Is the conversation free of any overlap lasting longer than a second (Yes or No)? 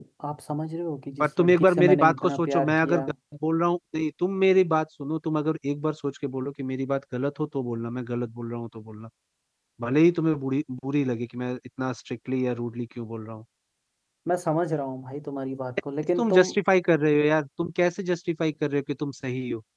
No